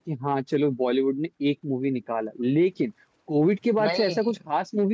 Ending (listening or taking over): listening